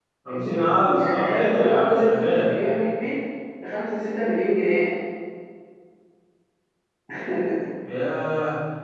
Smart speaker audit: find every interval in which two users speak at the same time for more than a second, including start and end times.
1.0-2.5

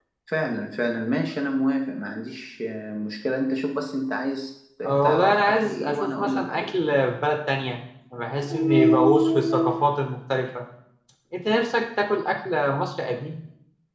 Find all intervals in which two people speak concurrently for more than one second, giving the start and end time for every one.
4.8-6.7

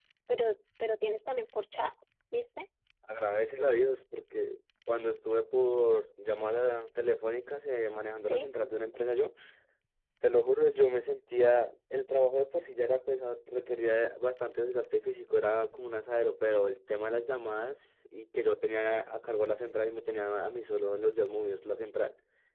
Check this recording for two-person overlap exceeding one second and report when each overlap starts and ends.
none

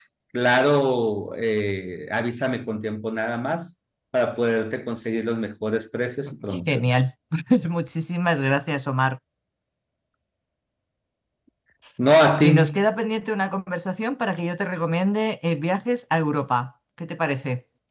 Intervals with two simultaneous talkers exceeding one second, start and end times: none

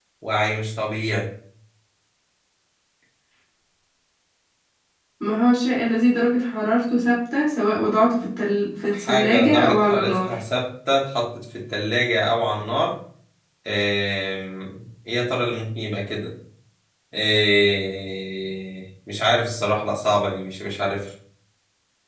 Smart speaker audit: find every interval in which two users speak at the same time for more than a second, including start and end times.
8.9-10.3

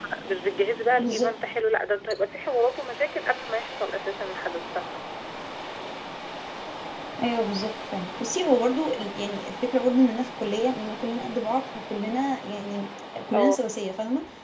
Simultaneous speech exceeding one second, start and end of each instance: none

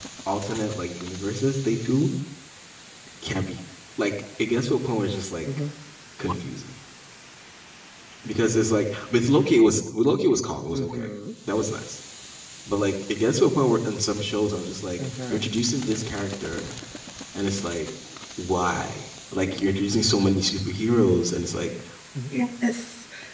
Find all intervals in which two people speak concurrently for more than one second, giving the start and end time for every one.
none

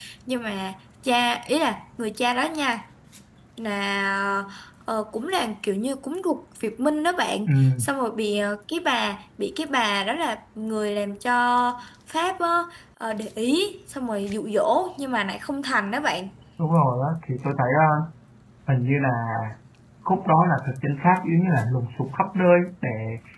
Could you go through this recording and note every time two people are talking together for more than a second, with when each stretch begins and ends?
none

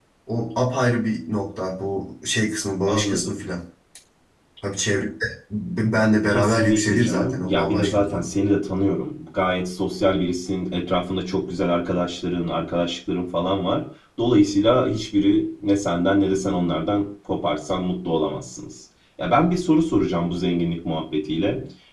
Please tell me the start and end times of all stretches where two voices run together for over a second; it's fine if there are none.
6.3-8.3

